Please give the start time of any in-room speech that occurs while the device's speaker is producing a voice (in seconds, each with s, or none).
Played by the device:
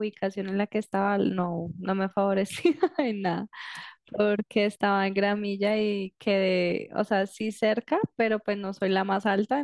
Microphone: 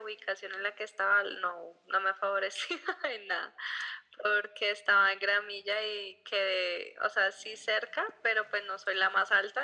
none